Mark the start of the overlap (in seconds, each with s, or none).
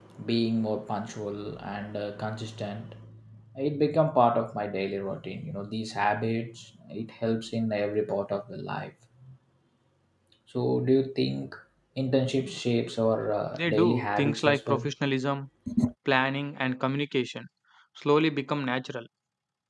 13.5 s